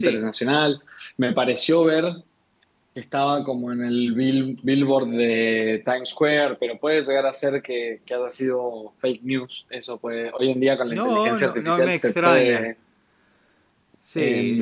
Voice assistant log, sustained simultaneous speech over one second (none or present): present